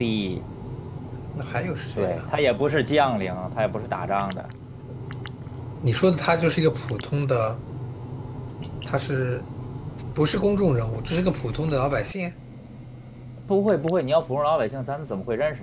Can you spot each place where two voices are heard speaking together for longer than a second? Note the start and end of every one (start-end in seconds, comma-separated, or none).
none